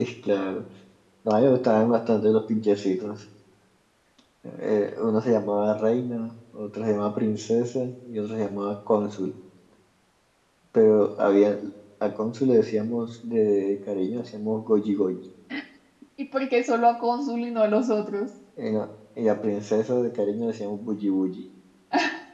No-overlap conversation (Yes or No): Yes